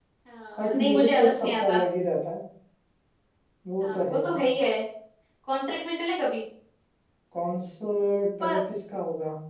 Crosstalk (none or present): present